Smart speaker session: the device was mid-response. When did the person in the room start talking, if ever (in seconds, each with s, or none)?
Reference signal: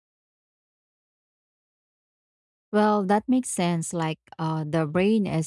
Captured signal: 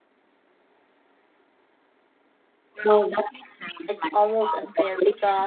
3.9 s